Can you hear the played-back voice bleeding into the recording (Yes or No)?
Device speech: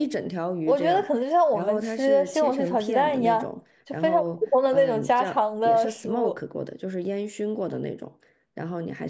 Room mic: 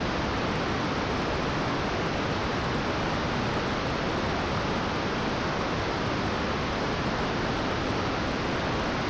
No